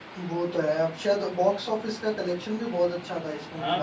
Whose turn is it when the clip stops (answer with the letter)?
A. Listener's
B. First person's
A